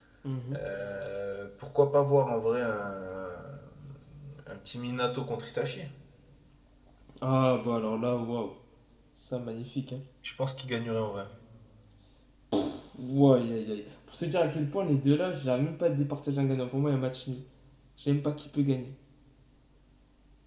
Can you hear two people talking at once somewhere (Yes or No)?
No